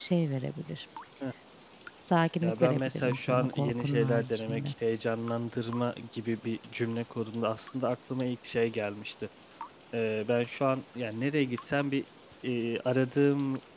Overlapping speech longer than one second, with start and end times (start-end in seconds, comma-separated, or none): 2.4-4.7